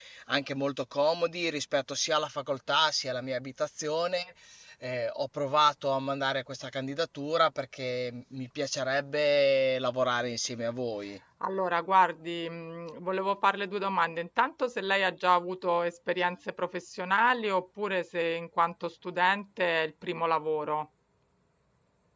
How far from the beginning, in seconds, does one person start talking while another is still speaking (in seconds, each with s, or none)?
none